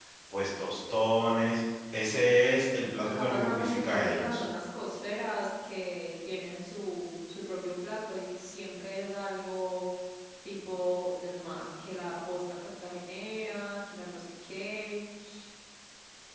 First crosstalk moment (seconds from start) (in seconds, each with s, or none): 3.0 s